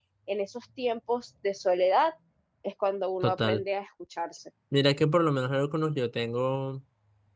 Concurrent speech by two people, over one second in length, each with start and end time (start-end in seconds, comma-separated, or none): none